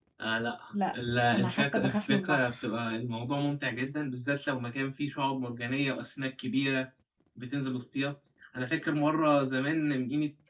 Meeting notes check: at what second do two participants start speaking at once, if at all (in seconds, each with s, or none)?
1.4 s